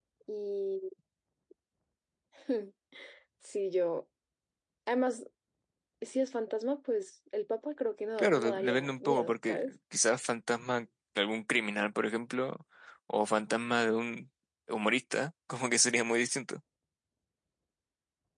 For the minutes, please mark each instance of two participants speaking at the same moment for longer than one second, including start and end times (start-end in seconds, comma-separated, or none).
8.2-9.7